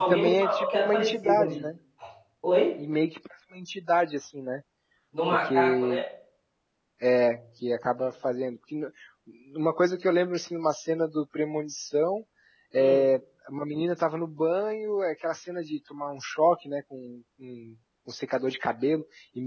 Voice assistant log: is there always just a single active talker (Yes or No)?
No